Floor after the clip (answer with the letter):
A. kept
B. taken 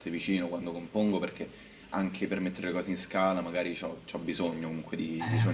B